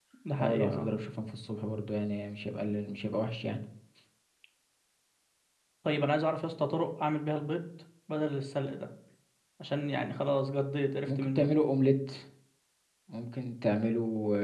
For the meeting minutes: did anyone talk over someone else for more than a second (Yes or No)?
No